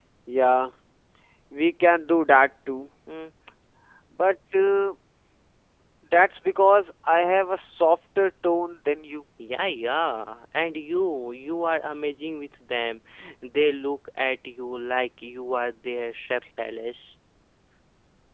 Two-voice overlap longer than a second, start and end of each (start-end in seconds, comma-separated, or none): none